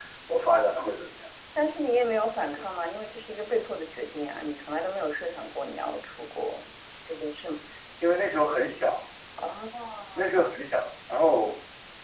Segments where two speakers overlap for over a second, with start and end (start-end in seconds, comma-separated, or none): none